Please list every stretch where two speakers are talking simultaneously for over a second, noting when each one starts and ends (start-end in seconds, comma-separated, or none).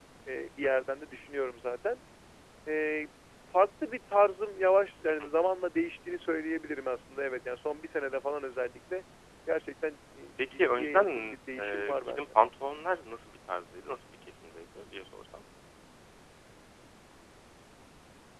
10.5-12.2